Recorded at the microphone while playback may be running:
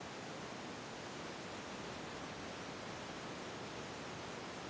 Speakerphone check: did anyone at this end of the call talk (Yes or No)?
No